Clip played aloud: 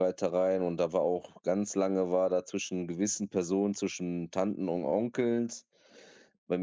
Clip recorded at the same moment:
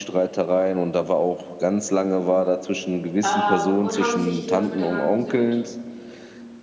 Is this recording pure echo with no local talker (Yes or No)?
No